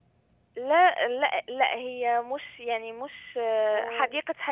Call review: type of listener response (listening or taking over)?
listening